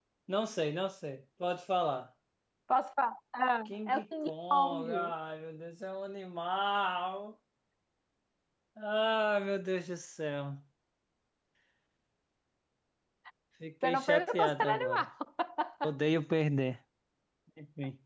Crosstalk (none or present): present